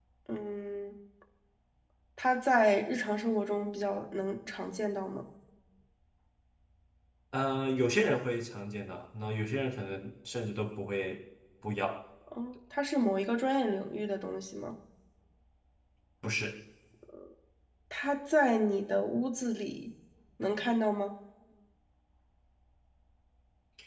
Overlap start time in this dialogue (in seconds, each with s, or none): none